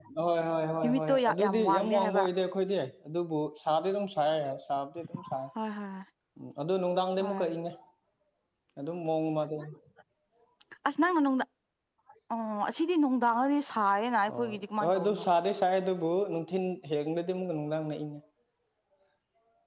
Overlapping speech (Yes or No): Yes